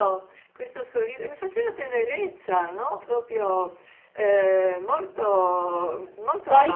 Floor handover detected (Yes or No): Yes